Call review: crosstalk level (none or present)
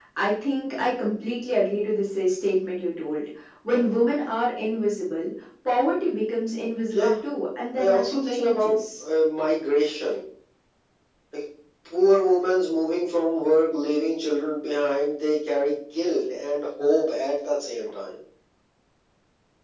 present